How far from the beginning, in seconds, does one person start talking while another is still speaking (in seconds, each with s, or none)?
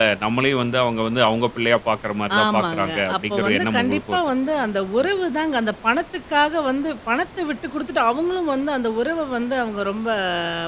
2.3 s